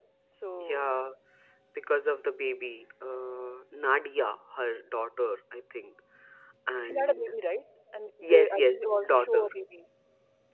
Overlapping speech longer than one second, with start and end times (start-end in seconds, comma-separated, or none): 8.2-9.5